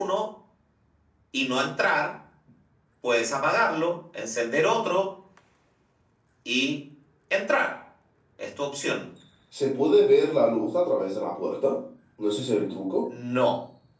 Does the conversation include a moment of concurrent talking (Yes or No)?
No